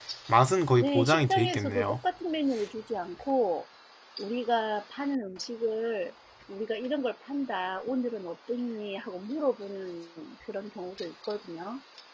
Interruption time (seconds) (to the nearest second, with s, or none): 1 s